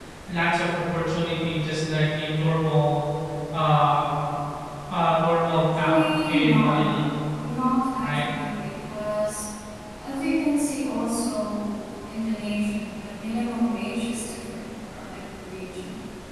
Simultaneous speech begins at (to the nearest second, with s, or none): 5 s